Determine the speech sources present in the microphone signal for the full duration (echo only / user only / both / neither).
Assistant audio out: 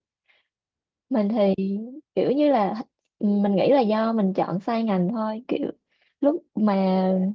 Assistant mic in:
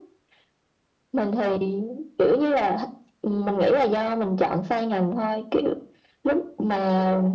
echo only